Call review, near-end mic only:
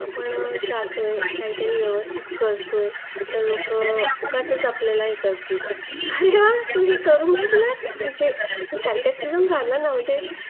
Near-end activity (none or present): present